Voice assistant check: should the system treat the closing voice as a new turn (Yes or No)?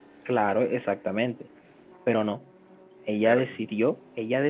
No